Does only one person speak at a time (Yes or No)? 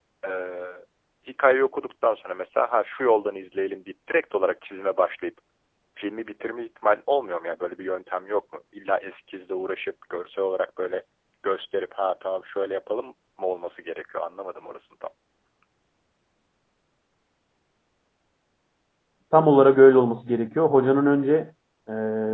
Yes